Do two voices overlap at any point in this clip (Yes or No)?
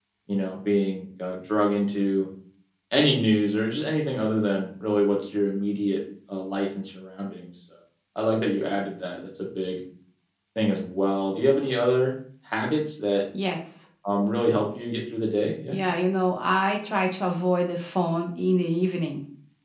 No